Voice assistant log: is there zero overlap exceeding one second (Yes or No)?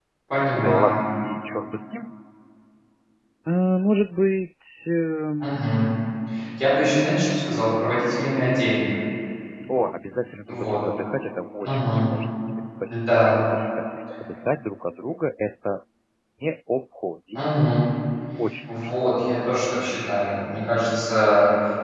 Yes